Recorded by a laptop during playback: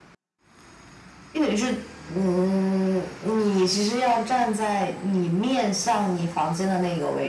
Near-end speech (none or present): none